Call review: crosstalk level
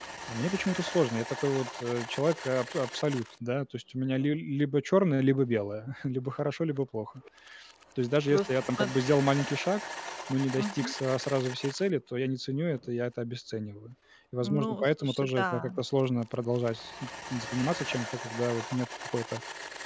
present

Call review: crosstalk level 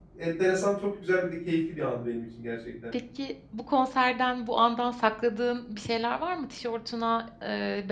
none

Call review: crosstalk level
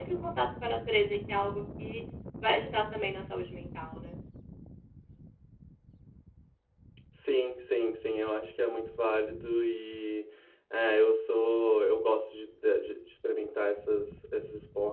none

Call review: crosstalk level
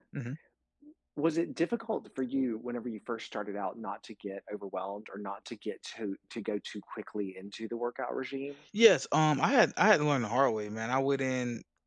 none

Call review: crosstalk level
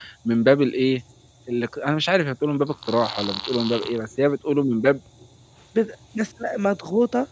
none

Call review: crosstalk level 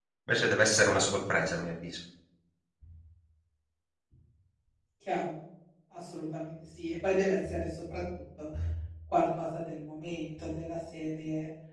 none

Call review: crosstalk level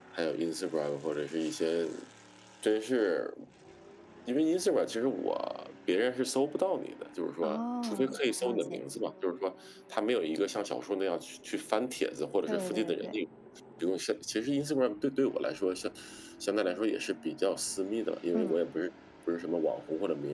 present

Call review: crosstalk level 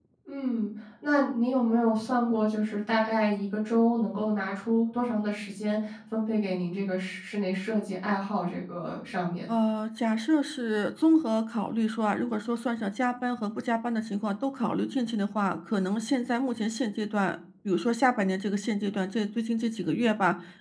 none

